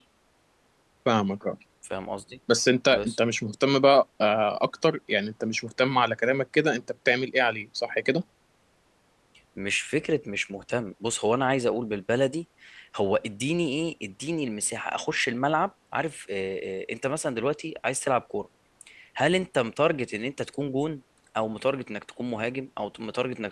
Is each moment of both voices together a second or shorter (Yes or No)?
Yes